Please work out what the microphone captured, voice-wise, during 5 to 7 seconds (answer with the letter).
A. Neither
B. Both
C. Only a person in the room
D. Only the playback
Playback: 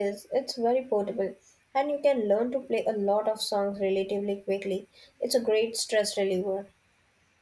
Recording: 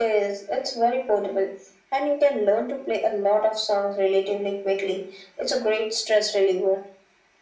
D